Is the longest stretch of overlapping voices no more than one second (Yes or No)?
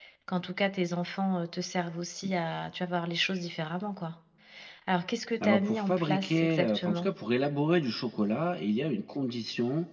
No